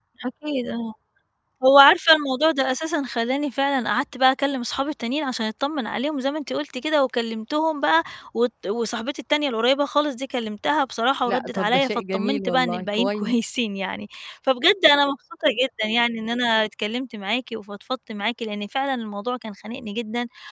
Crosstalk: present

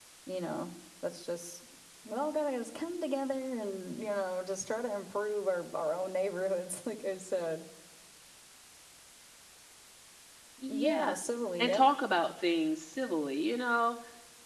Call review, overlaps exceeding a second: none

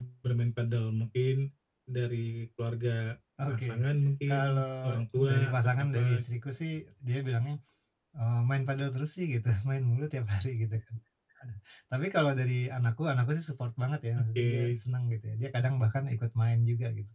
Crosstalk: present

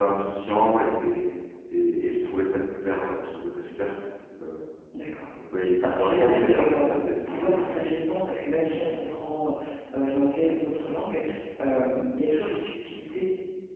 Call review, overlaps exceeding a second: present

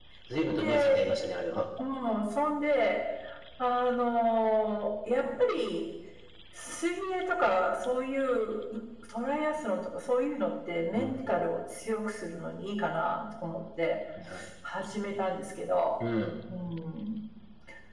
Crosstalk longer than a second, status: none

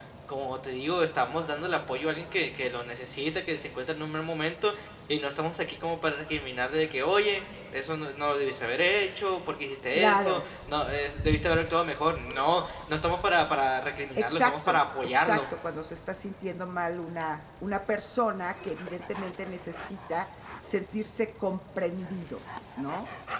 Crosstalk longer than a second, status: present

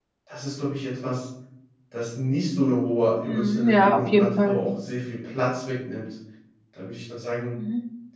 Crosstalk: present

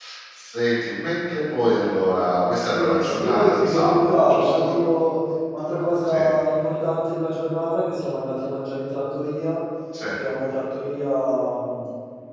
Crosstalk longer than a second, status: present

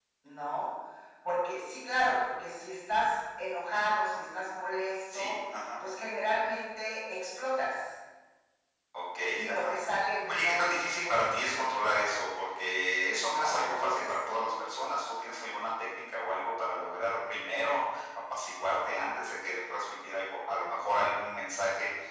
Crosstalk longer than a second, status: present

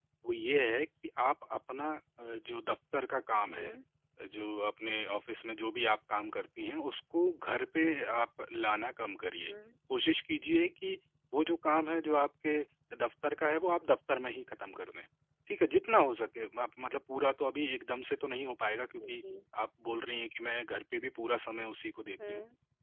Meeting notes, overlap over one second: none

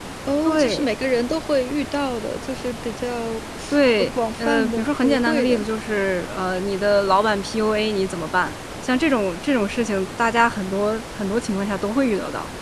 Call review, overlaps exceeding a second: present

